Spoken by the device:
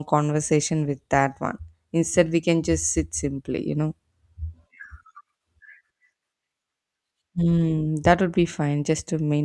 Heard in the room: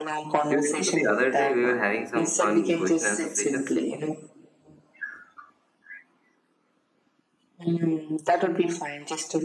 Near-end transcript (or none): Do you remember the other day we were having some fun question answer sessions?